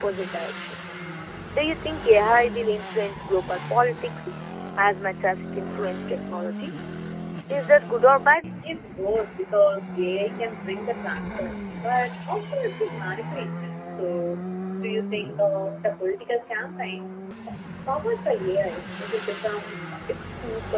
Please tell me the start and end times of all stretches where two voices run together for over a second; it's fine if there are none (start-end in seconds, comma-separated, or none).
none